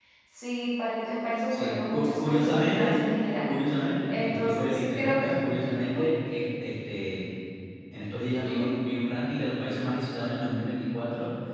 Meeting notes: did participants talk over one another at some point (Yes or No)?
Yes